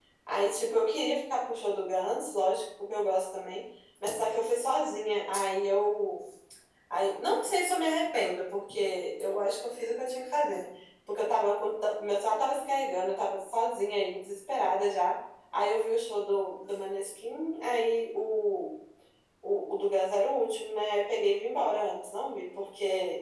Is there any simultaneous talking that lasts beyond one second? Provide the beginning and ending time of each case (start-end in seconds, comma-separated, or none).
none